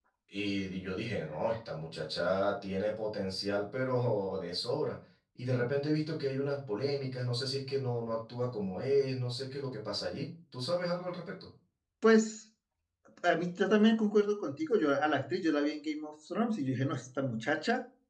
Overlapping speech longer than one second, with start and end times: none

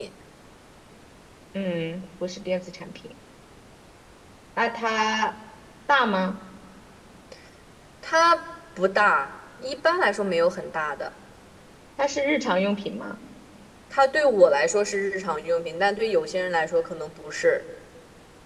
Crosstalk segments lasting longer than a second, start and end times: none

